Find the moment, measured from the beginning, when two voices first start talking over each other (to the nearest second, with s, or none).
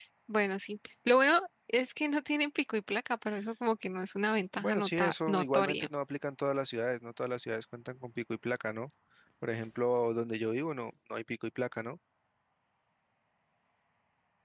5 s